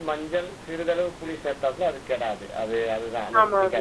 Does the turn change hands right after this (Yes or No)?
No